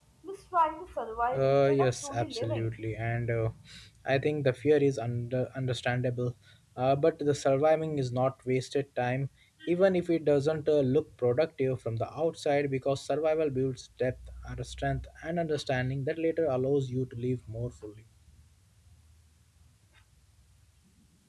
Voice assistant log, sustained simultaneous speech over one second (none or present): present